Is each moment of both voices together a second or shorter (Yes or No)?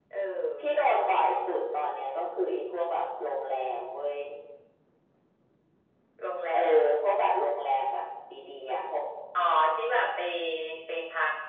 Yes